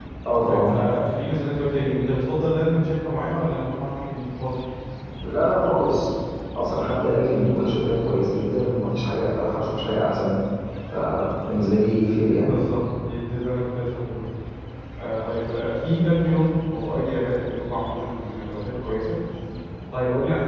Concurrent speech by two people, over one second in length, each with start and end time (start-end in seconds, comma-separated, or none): none